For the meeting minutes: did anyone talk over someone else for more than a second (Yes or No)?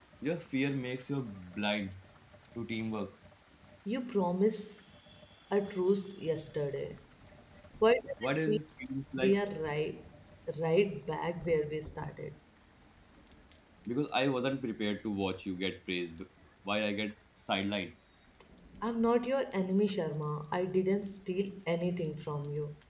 No